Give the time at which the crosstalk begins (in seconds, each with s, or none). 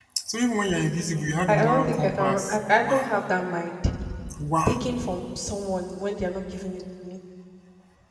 1.5 s